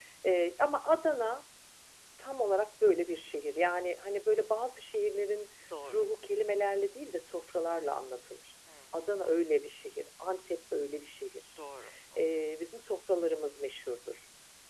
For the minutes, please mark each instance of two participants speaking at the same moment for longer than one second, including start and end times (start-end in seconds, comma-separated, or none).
none